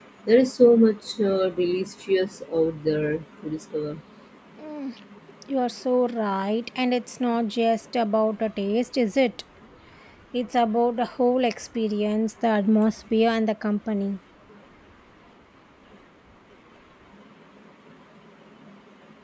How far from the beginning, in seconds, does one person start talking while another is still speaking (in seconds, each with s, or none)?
none